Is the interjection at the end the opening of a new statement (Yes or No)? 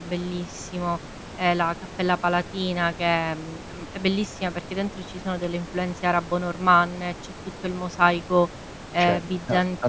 Yes